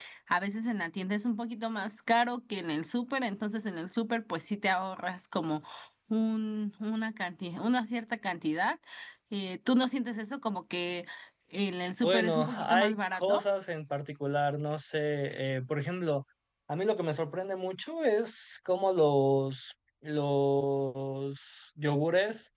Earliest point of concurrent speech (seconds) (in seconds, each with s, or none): 12.0 s